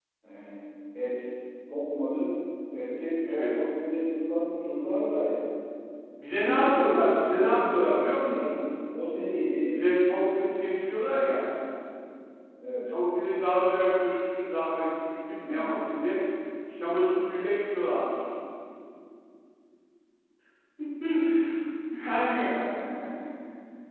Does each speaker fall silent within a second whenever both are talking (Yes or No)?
No